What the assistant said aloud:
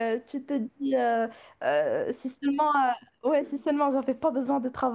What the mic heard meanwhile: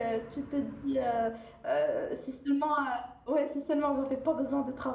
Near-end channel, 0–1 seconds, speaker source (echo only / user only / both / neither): echo only